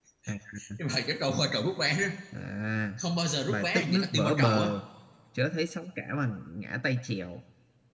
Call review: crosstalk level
present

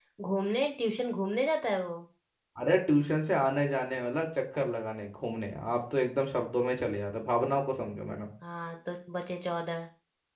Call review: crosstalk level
none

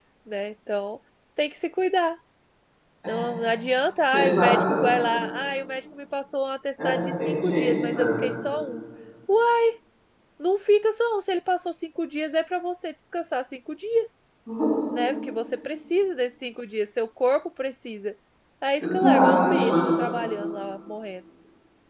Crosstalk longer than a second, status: present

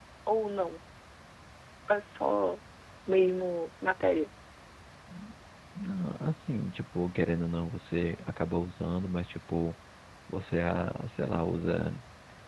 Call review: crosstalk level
none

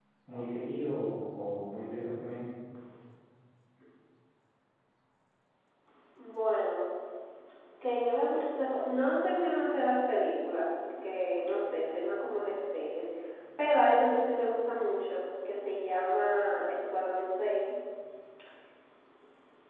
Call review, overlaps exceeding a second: none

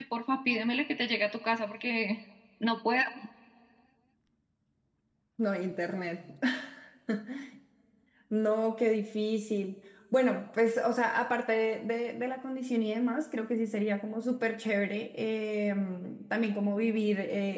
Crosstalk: none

